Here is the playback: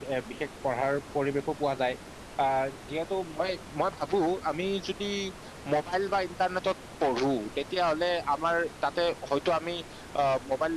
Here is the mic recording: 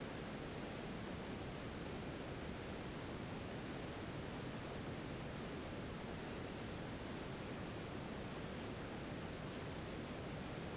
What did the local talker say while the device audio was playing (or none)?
none